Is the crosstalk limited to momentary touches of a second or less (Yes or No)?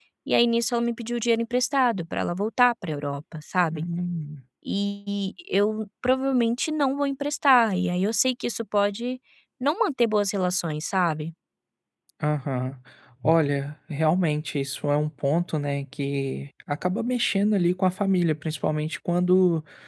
Yes